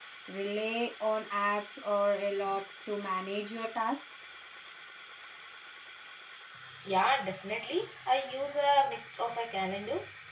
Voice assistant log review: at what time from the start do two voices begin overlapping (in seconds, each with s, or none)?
none